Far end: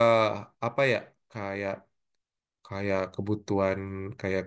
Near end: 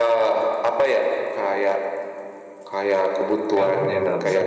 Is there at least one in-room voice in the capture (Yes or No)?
Yes